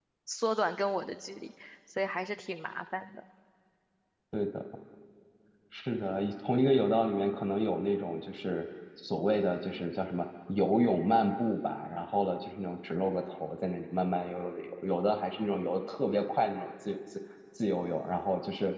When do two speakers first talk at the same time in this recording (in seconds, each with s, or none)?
none